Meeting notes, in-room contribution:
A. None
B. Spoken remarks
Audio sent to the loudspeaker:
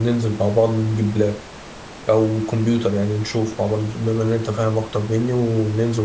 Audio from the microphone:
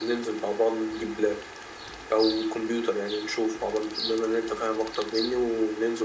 A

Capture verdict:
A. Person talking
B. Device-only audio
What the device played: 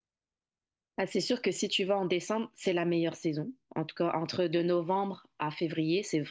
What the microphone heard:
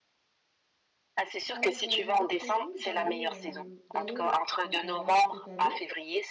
A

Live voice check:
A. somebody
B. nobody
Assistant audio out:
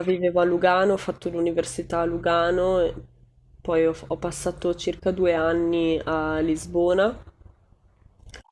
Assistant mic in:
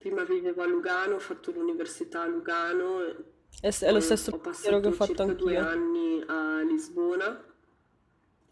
A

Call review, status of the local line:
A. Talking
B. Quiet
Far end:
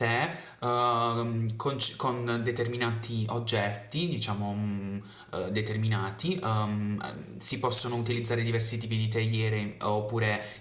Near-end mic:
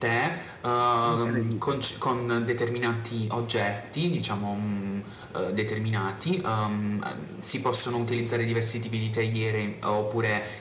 A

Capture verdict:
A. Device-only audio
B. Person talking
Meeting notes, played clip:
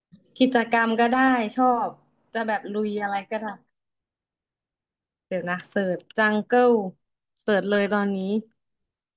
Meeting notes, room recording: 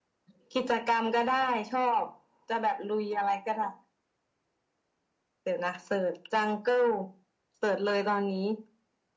A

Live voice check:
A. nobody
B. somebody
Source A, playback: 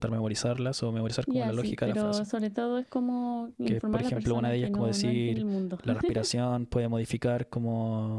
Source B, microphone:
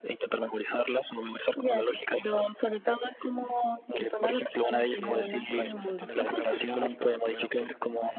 B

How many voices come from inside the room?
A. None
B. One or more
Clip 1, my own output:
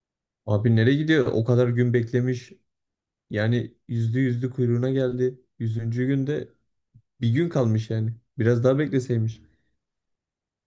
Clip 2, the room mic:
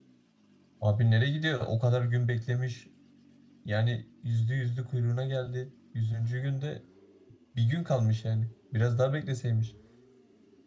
A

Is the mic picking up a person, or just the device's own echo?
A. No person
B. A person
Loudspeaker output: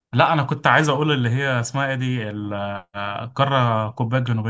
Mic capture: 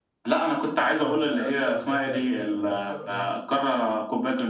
B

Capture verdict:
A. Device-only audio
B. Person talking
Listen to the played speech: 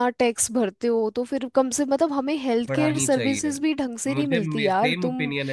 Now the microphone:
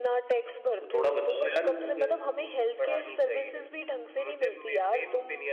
B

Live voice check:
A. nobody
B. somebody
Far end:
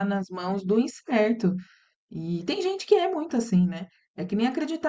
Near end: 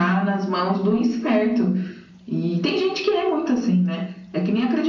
A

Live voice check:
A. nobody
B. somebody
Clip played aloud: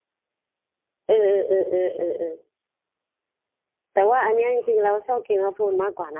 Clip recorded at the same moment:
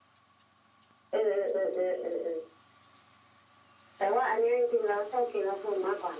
A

